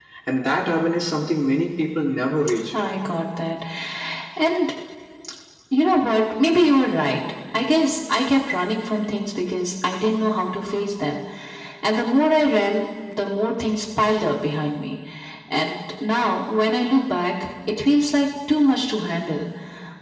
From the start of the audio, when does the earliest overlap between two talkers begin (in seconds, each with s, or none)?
none